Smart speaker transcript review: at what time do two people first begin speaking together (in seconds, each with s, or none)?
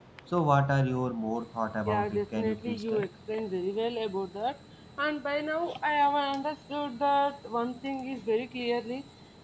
1.9 s